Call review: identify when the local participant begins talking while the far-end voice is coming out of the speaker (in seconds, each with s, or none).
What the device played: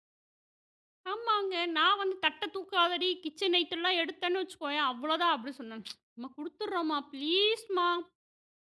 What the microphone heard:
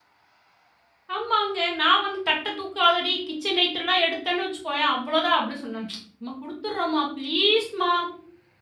none